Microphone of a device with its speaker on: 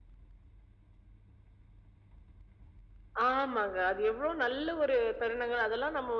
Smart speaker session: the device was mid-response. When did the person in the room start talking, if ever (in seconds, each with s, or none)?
none